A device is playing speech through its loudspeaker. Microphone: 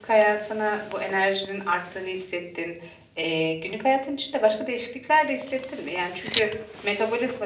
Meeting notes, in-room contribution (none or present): present